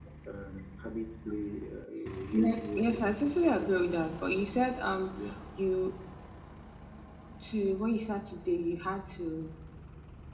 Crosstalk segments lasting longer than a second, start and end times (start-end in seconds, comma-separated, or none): 2.3-4.3